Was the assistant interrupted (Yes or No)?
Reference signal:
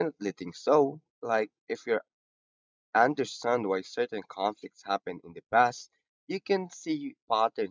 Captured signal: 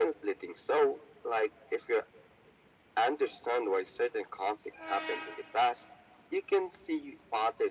No